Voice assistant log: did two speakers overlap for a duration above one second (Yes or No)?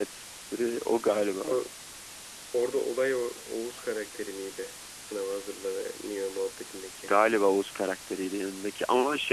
No